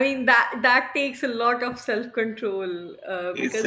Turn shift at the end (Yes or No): No